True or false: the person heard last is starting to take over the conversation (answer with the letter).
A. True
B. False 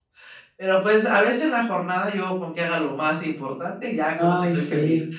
A